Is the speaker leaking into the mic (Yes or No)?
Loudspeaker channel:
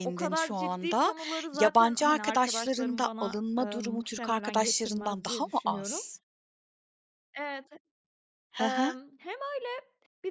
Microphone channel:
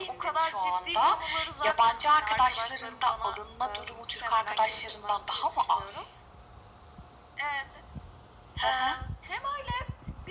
Yes